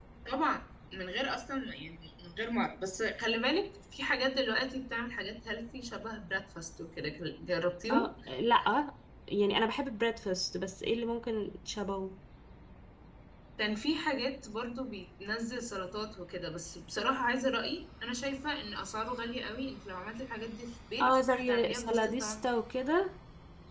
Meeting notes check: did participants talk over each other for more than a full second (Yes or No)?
Yes